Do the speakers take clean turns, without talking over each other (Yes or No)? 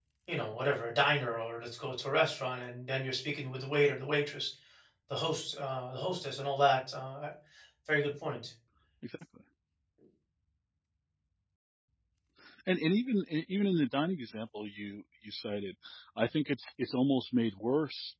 Yes